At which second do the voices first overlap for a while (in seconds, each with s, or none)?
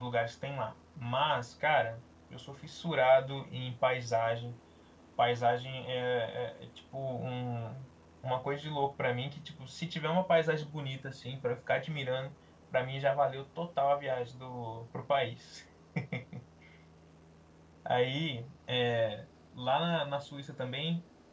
none